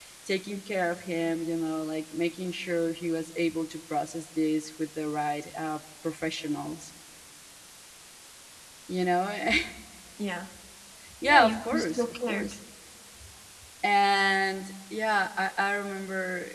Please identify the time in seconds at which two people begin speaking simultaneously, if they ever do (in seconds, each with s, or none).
11.2 s